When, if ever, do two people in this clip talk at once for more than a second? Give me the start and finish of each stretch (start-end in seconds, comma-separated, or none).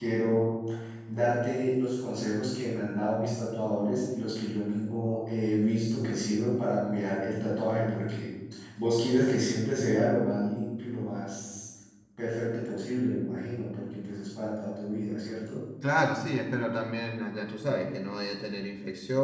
none